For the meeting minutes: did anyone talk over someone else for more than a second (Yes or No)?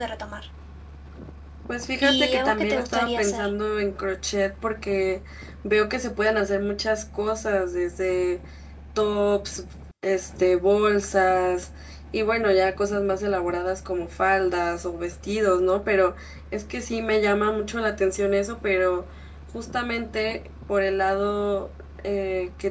Yes